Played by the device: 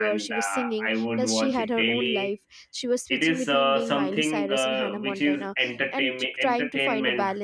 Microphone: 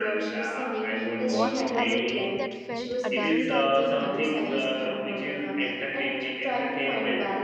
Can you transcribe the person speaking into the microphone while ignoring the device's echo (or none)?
watched as a teen that felt adult i think it will be